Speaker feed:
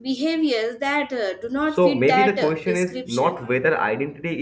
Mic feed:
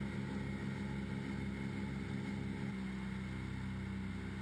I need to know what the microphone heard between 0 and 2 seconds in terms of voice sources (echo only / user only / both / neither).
neither